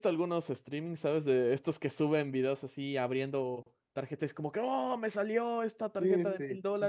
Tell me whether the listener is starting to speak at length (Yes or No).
Yes